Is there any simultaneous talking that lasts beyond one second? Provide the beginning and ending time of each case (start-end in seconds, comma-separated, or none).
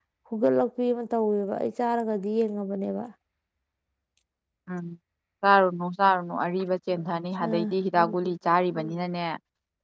none